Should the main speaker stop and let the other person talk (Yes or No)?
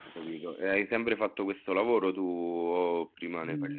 Yes